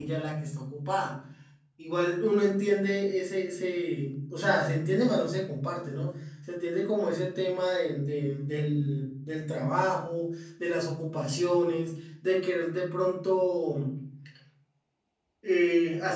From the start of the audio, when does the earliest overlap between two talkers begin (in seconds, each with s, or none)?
none